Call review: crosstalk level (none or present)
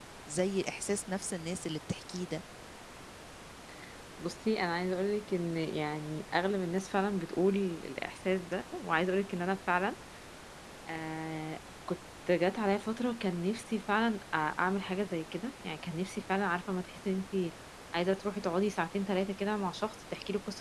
none